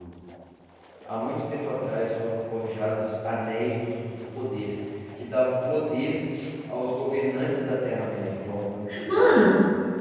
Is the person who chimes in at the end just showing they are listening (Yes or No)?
No